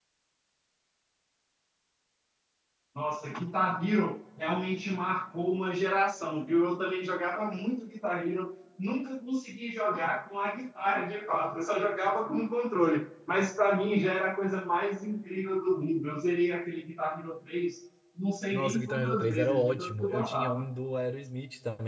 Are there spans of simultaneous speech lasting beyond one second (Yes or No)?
Yes